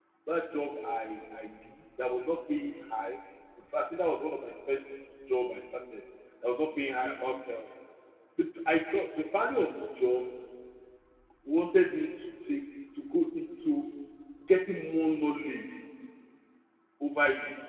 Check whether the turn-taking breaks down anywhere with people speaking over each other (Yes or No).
No